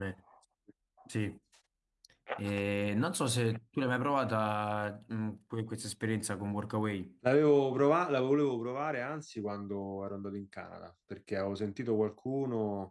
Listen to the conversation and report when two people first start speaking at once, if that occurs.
none

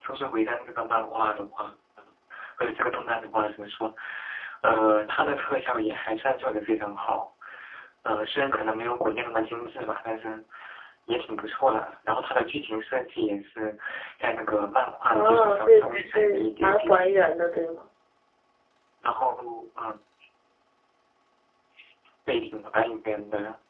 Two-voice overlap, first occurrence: 15.1 s

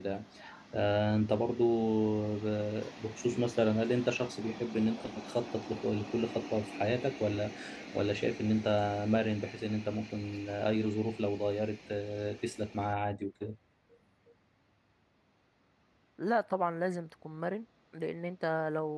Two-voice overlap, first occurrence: none

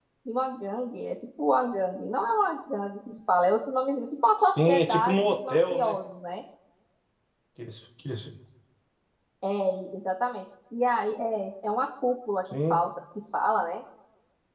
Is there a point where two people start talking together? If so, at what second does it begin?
4.4 s

